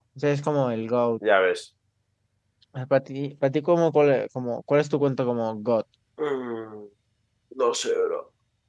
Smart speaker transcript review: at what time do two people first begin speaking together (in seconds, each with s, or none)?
none